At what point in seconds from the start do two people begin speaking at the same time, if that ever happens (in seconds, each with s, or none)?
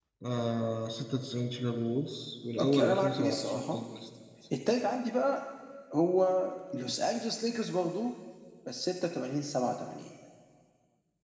2.5 s